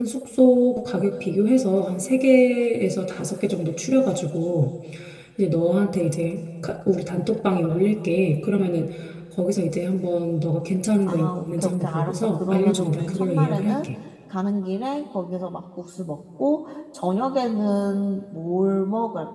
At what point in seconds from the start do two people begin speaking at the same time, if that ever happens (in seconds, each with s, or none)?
11.1 s